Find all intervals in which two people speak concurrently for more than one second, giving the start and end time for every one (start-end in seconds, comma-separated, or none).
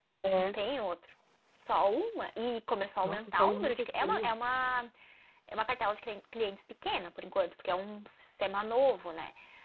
3.0-4.3